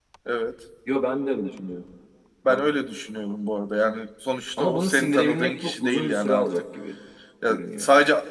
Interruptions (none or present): present